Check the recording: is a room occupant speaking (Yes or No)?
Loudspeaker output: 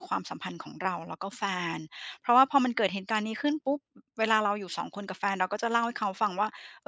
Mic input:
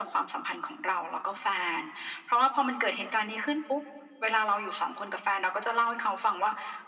No